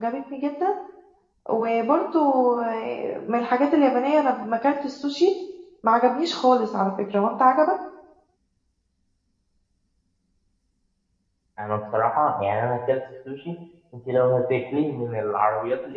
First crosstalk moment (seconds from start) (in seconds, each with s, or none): none